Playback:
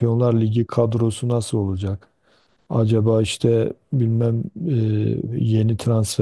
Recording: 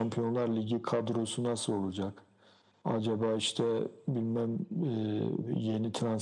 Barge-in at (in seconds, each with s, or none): none